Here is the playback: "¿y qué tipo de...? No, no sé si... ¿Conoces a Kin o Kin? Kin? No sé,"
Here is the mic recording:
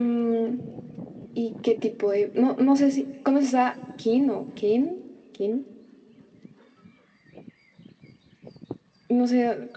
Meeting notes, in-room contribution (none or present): none